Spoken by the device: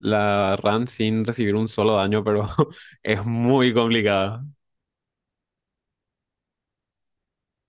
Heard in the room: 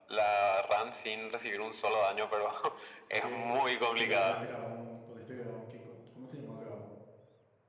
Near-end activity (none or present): present